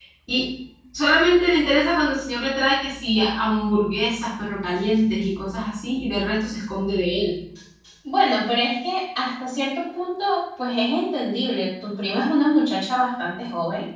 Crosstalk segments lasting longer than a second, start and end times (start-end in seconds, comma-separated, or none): none